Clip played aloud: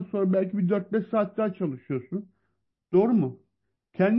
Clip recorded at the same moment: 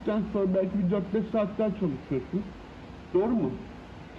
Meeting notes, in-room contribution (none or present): none